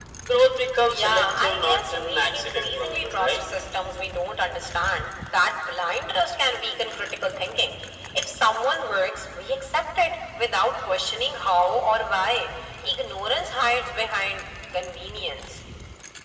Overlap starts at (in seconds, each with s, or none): 0.9 s